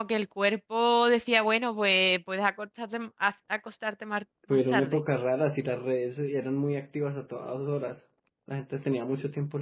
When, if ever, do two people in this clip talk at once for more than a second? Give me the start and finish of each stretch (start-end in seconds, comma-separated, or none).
none